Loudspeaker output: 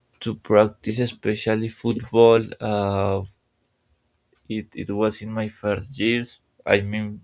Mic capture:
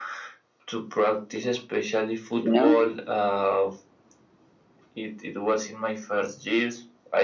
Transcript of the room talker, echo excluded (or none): you know.